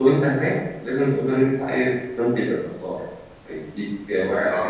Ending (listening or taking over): listening